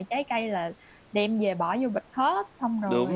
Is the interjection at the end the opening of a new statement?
Yes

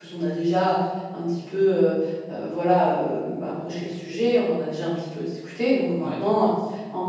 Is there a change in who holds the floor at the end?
No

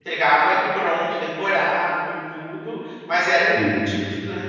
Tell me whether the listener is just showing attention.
Yes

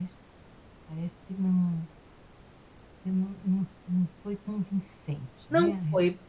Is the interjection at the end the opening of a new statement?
Yes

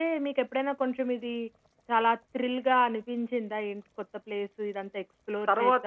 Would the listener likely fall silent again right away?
No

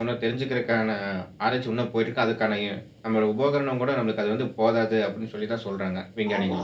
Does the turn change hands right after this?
Yes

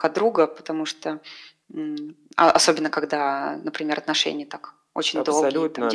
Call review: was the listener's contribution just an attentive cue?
No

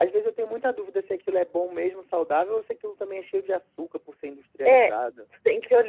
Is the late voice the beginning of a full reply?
Yes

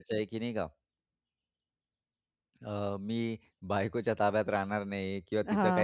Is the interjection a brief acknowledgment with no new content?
Yes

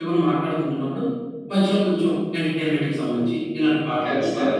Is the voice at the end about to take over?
Yes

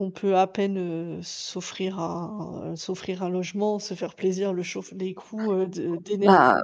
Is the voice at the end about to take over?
Yes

